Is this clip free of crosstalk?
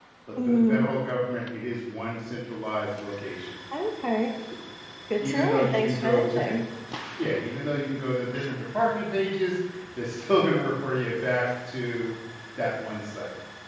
No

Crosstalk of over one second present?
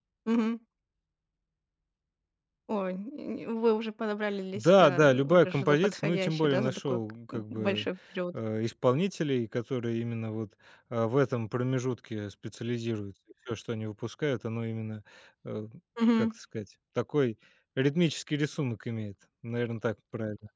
Yes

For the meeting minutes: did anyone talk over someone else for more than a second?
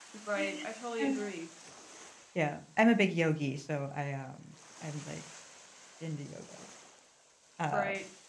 No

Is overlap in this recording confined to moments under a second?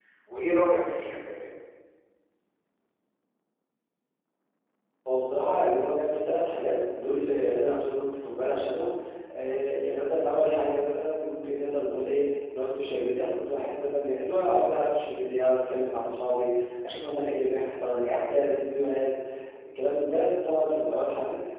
Yes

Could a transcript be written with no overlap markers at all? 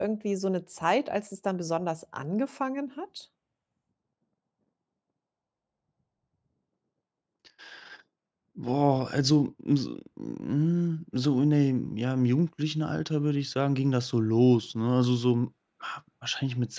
Yes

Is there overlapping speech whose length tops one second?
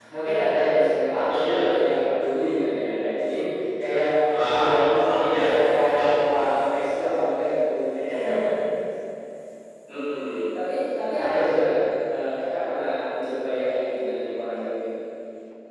Yes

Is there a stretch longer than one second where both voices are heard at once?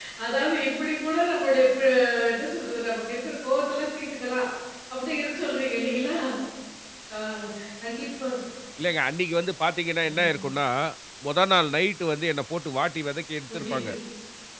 No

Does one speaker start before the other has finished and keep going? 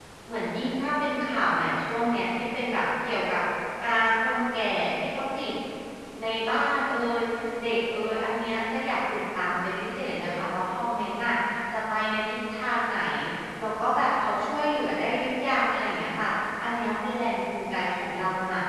No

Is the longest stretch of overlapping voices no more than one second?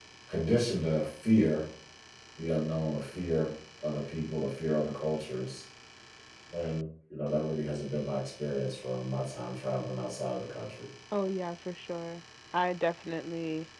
Yes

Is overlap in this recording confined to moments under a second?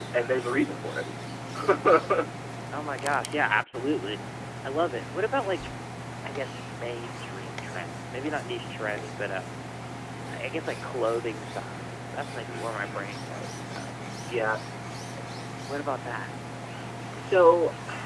Yes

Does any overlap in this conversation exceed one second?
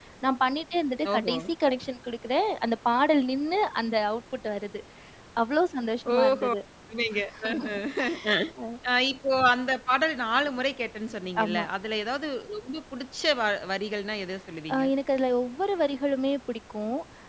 No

